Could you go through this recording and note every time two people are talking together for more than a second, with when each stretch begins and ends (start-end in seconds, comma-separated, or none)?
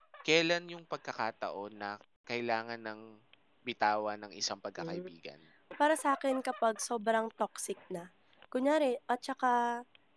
none